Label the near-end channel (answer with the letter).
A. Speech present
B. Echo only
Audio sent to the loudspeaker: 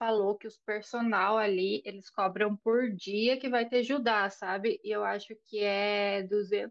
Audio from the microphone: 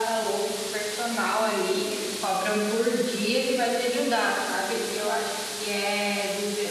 B